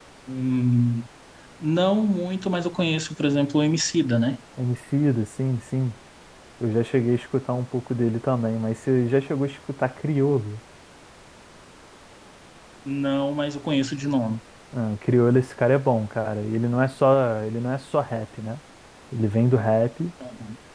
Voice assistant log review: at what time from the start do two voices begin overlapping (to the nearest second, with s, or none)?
none